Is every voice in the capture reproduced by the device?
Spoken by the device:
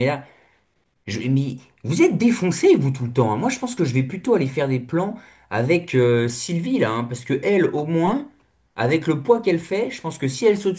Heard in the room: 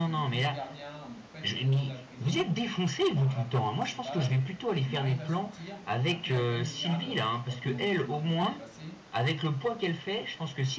No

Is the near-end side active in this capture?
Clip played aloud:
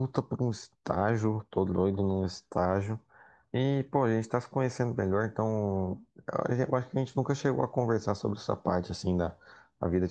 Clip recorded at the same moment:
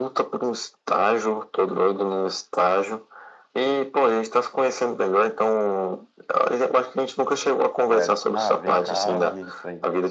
Yes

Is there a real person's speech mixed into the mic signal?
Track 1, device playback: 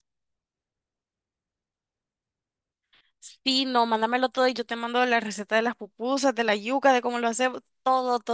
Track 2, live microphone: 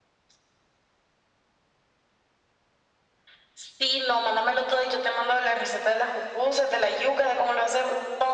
No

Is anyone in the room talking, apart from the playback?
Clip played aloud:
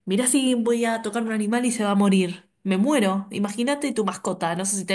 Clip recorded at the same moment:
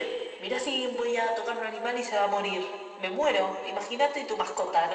No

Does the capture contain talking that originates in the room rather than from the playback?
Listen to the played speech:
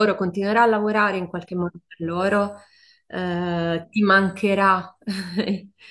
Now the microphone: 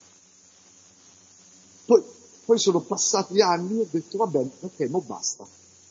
Yes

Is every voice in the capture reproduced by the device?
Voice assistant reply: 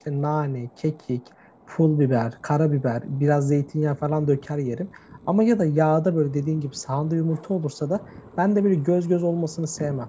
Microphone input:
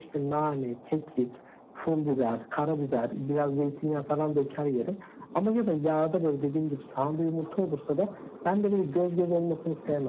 Yes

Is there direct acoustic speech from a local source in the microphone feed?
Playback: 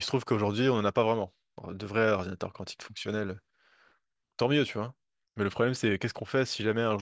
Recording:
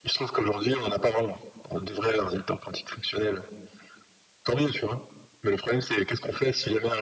No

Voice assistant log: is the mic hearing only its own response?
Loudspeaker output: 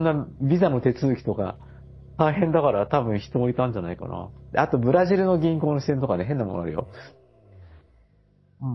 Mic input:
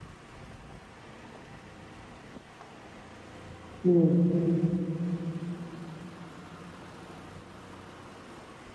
No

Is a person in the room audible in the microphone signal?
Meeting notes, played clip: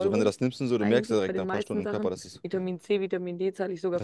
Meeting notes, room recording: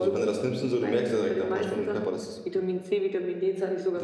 No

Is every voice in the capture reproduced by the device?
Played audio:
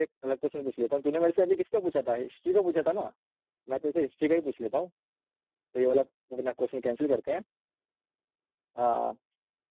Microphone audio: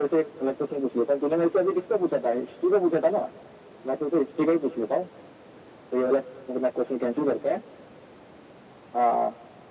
Yes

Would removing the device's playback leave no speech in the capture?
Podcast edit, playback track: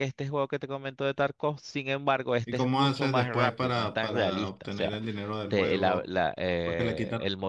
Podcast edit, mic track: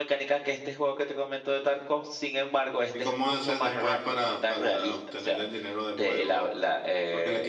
Yes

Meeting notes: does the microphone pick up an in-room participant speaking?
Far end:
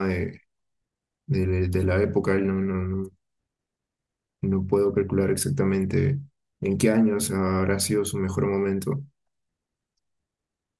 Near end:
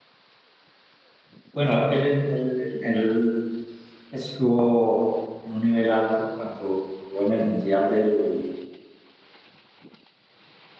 Yes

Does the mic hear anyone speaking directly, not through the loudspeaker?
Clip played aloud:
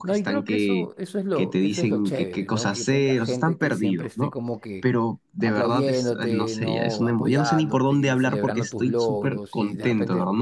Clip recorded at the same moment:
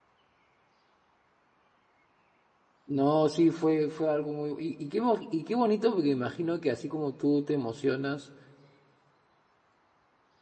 Yes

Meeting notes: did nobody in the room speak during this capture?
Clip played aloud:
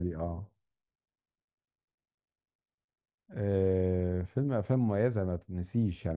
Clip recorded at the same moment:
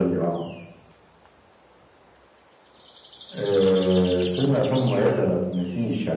Yes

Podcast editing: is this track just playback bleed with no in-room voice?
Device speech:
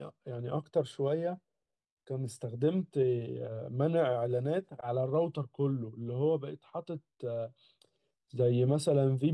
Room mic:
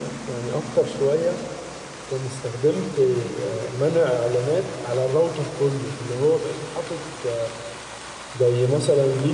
Yes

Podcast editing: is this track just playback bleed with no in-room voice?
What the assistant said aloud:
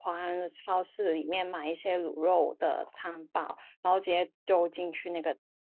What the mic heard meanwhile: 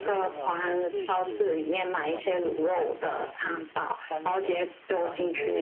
No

